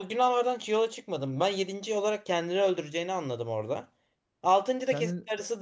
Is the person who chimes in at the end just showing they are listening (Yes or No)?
Yes